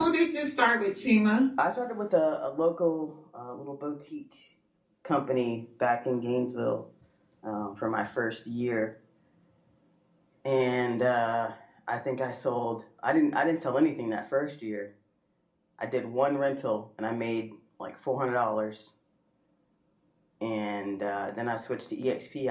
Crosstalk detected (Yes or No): No